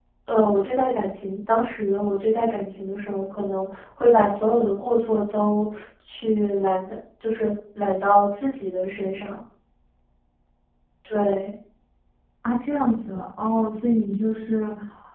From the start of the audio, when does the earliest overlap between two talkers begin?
none

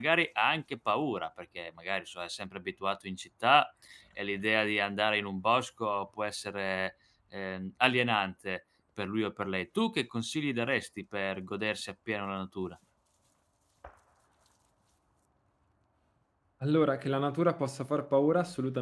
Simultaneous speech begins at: none

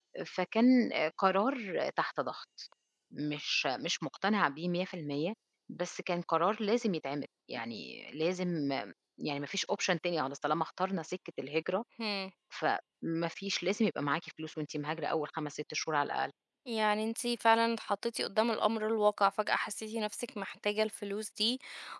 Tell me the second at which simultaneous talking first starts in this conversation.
none

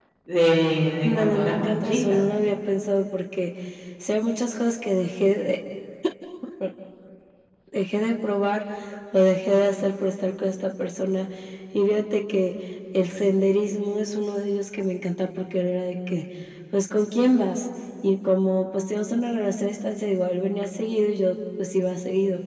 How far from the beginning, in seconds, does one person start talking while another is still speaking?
1.0 s

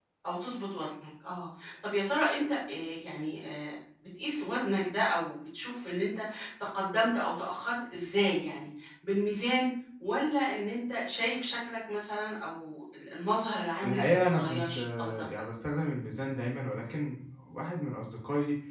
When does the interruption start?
13.8 s

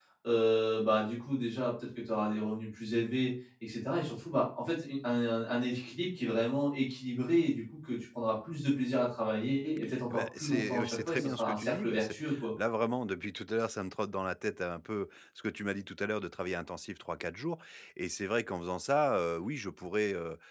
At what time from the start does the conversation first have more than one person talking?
10.1 s

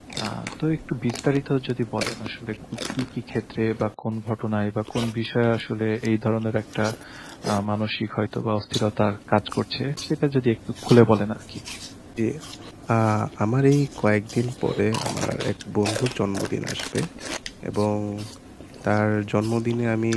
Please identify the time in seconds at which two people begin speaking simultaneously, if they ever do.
none

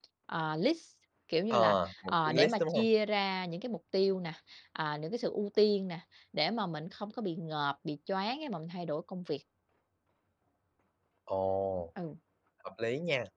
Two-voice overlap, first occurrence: 1.5 s

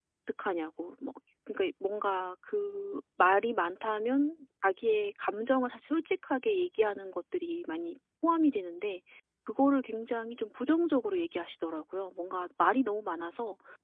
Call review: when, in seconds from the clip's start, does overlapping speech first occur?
none

